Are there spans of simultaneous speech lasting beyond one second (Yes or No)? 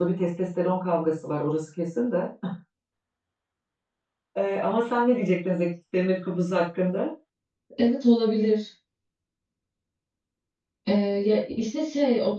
No